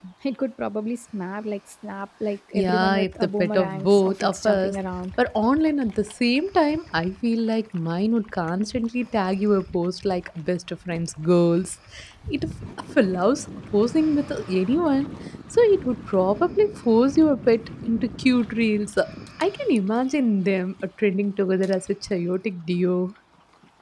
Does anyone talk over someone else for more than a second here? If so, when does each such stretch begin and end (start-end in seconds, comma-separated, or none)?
2.5-4.8